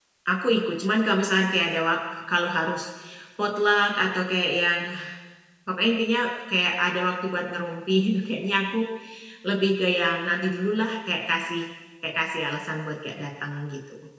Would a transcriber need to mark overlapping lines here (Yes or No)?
No